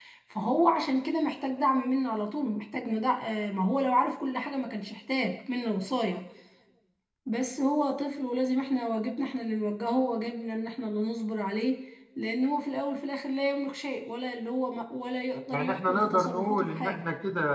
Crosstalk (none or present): present